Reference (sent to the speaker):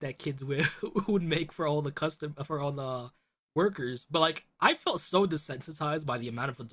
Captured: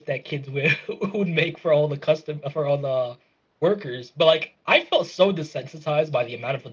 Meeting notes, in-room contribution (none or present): none